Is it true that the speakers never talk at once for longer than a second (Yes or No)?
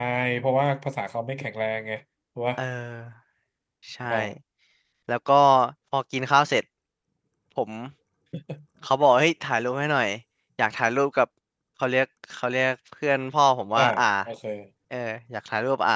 Yes